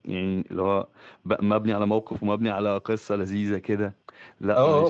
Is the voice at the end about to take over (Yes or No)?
Yes